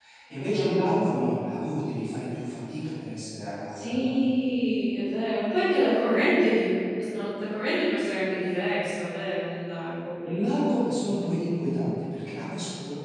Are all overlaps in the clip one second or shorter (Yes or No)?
Yes